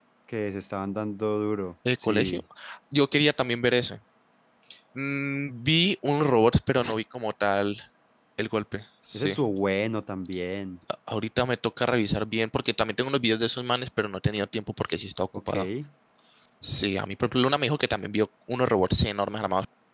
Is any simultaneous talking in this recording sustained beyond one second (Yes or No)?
No